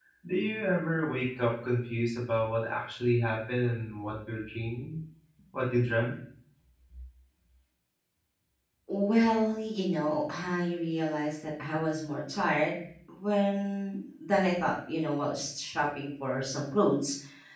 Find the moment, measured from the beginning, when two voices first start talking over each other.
none

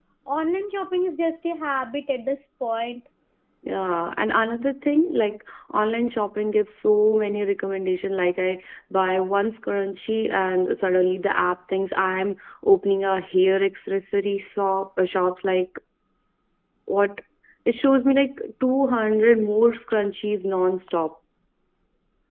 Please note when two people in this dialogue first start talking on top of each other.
none

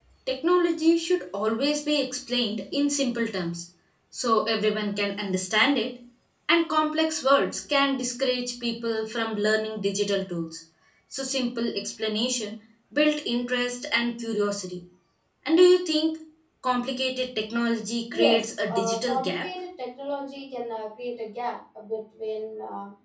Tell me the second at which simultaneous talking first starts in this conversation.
18.1 s

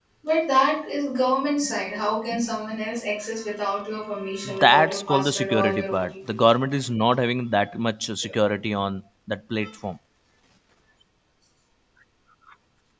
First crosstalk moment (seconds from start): 4.5 s

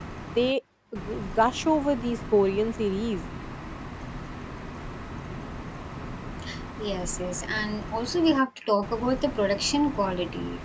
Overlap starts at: none

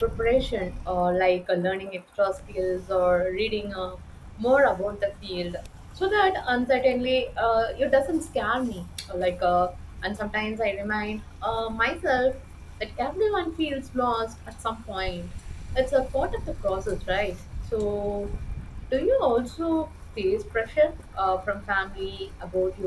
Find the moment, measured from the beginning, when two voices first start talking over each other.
none

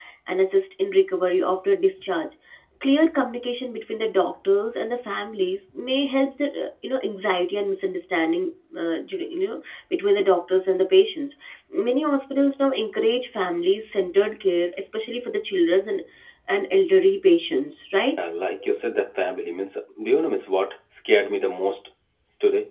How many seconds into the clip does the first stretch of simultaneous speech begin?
none

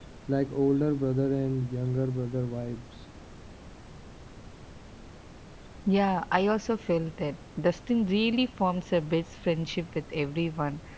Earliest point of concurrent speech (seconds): none

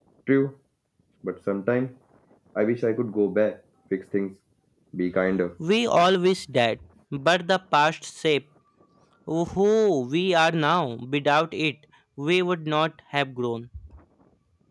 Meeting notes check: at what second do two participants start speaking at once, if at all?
none

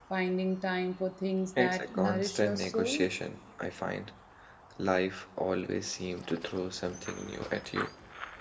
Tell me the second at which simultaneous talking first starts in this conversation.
1.6 s

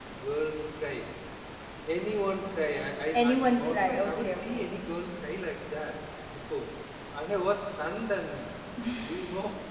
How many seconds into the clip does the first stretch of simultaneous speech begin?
3.3 s

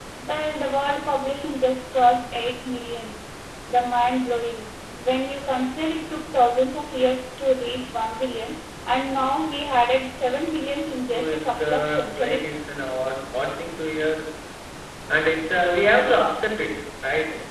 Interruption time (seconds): 11.1 s

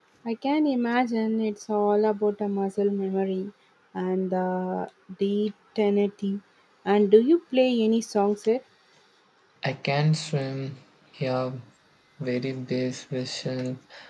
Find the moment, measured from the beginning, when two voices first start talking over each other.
none

